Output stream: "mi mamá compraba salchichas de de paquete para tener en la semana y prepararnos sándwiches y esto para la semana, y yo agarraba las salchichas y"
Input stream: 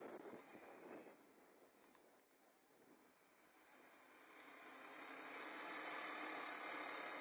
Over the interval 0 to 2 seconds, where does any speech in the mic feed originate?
neither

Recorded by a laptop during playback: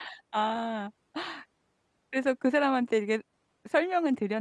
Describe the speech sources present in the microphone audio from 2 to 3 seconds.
user only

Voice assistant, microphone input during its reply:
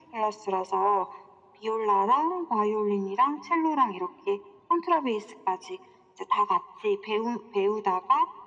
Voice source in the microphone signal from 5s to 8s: echo only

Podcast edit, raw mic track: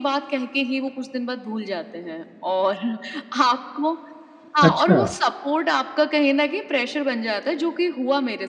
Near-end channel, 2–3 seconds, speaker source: echo only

